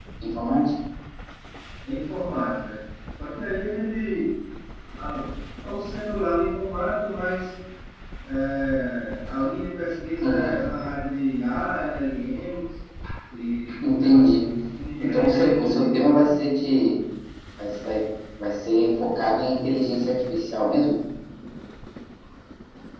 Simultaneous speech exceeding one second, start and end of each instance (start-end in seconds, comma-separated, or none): 15.0-16.3